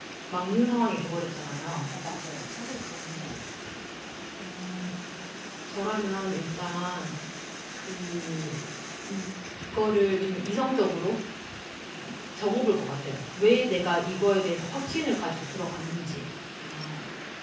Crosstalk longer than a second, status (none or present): none